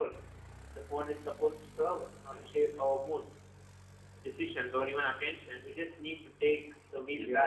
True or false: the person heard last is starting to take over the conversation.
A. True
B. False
A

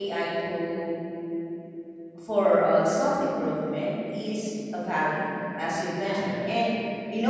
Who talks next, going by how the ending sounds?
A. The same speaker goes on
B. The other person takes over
A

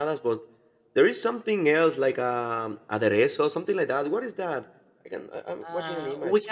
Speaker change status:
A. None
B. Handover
B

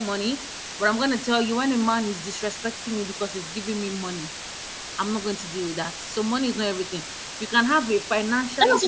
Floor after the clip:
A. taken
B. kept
A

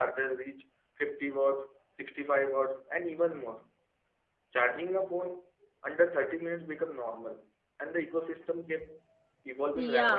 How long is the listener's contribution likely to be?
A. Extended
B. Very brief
A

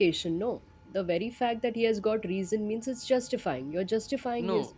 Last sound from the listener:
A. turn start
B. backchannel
A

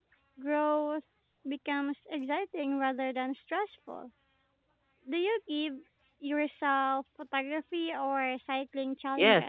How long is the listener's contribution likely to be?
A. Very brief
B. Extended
B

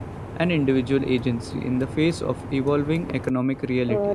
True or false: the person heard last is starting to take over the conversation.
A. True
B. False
A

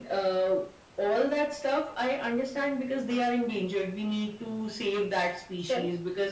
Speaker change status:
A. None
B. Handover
A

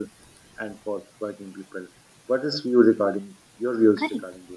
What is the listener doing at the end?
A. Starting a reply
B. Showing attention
A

